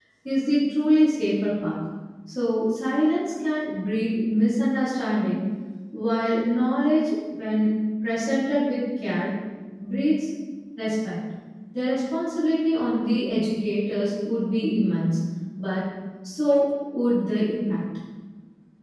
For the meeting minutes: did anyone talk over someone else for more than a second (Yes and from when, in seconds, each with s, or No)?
No